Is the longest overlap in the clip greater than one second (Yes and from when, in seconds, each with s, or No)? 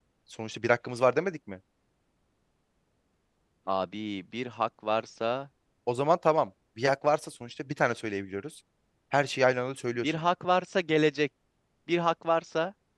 No